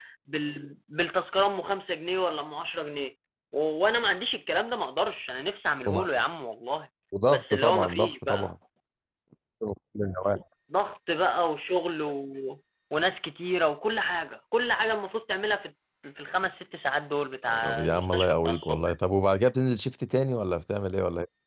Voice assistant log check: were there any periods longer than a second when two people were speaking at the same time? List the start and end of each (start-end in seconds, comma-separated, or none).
7.3-8.5, 17.5-18.8